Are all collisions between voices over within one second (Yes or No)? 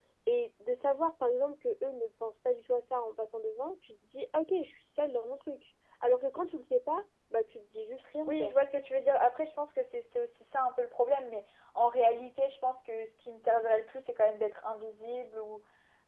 Yes